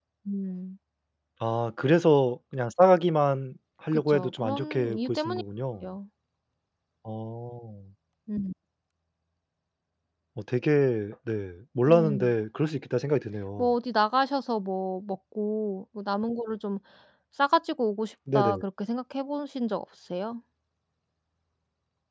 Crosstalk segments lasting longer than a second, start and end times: 3.9-5.4

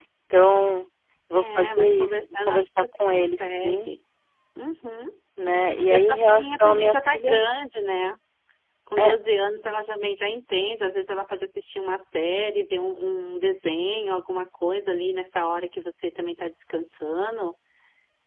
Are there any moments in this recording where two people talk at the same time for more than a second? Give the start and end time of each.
1.4-3.9, 5.9-7.4

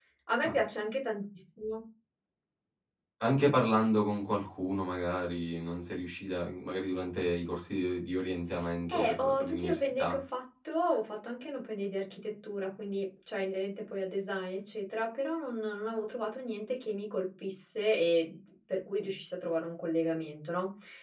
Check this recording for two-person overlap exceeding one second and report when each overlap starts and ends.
8.9-10.2

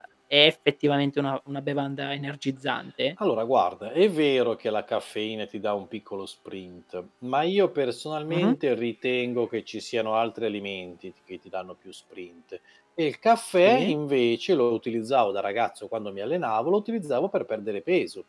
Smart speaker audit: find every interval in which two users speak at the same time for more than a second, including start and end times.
none

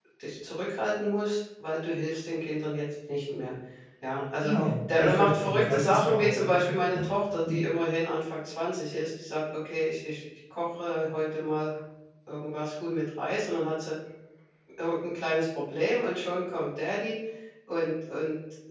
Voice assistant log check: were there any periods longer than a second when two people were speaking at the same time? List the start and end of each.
5.0-7.0

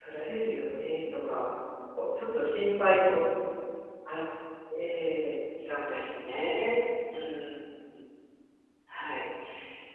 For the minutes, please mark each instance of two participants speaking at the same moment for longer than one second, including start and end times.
none

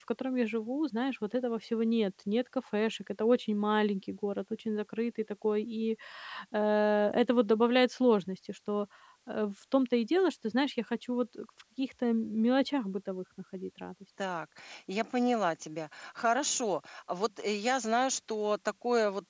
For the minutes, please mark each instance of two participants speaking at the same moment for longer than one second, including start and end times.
none

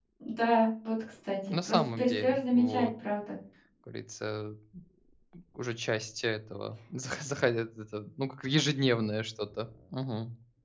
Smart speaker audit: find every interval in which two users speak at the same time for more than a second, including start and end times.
1.6-2.9

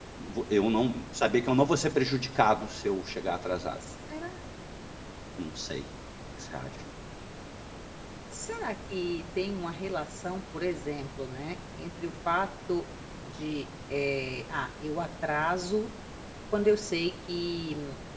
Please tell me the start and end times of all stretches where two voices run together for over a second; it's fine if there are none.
none

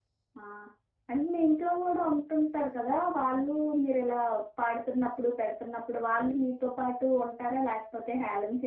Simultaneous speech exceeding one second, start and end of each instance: none

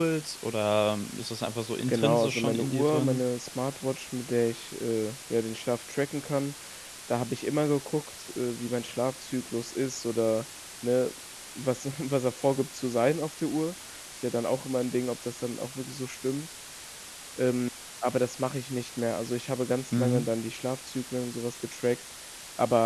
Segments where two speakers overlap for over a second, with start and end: 1.9-3.2

